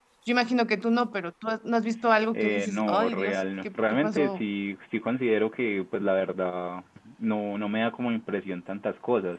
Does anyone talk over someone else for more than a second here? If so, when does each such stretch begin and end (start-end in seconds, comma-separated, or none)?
2.3-4.4